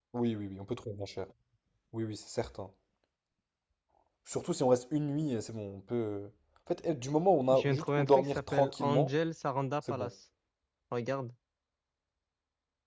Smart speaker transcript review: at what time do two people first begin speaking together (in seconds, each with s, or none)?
7.5 s